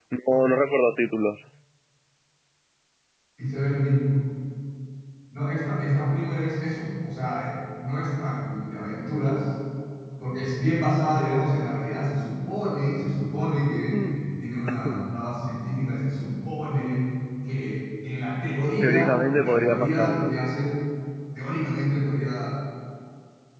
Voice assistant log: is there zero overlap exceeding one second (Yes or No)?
No